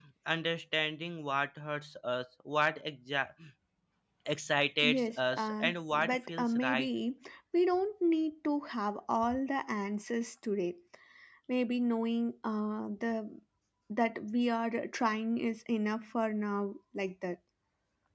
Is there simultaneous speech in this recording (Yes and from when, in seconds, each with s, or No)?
Yes, from 4.8 s